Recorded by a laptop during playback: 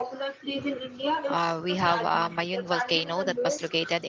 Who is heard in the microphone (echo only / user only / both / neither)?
both